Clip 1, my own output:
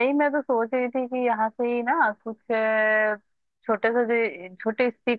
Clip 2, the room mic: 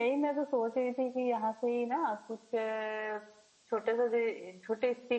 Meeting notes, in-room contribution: none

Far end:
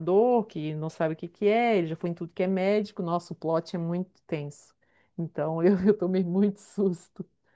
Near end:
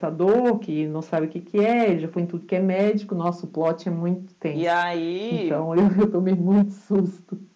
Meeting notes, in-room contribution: present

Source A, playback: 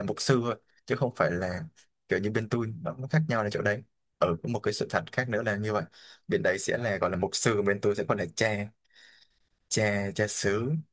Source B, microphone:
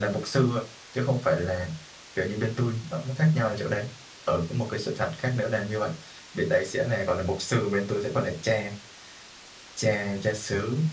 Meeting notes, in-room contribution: none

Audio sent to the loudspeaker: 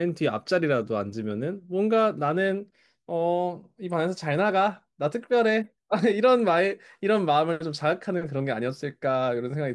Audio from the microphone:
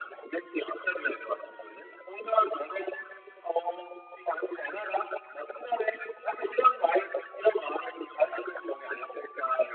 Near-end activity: none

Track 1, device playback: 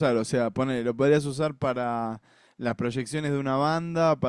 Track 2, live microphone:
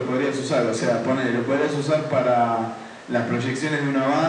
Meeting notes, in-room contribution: none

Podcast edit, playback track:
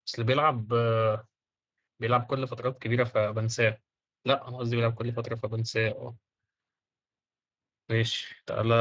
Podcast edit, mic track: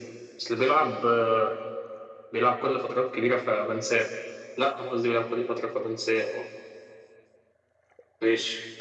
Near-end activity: none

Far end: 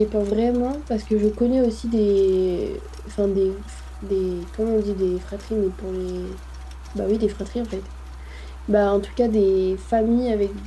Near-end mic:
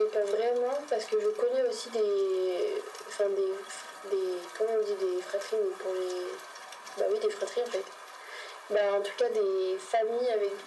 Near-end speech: none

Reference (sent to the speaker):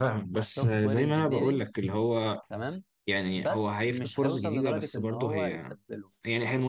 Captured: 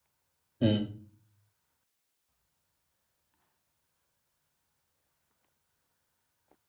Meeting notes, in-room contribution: present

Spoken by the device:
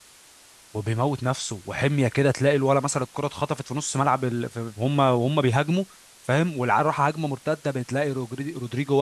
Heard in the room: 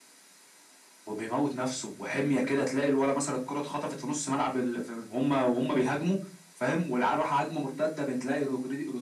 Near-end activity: none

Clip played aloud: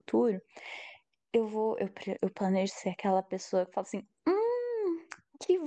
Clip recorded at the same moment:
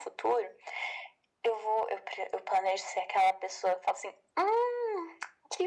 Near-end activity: none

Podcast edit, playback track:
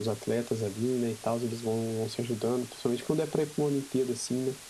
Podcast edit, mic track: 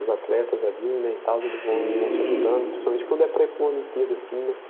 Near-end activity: present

